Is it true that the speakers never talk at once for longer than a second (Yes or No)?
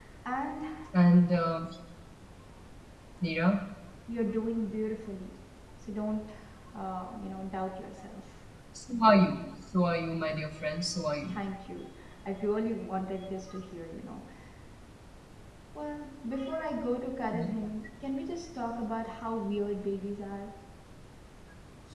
Yes